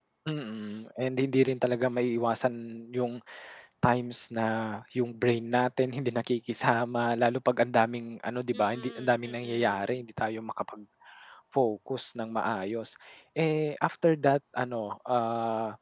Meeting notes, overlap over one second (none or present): present